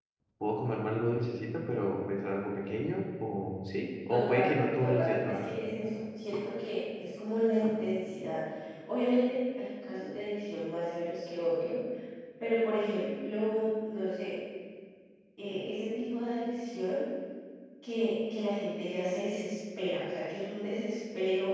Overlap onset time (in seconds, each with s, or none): 4.1 s